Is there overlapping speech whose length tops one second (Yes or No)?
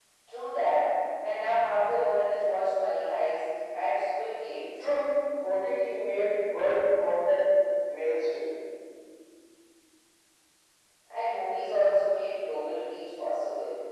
No